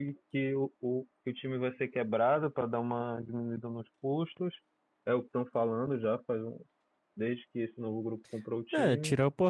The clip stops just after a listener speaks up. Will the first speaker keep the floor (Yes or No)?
No